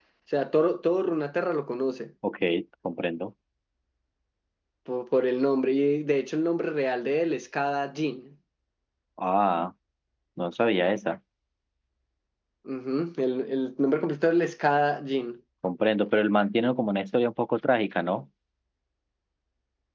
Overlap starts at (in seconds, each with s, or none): none